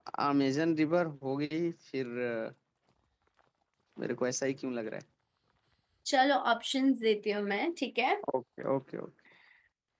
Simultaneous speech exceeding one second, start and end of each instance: none

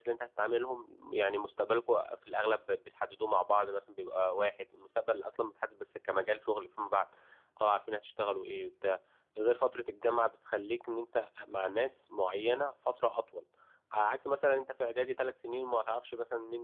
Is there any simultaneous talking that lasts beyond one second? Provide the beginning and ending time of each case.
none

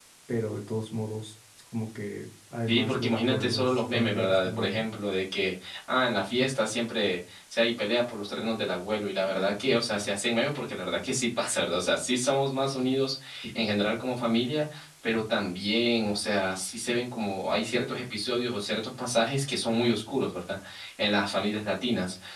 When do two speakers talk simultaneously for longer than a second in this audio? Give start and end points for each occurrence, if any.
2.7-4.8

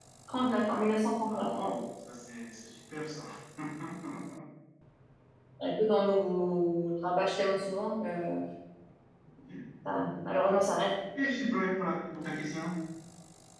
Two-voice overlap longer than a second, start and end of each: none

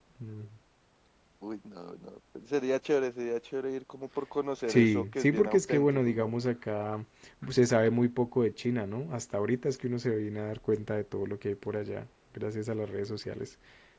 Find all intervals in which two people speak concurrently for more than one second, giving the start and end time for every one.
4.7-6.3

